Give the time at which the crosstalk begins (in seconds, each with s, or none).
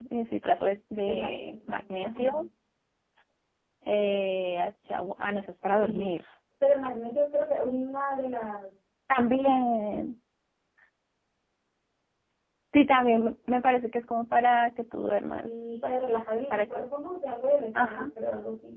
1.0 s